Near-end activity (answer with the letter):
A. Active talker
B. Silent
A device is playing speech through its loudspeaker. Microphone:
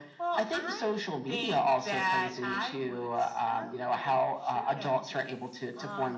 B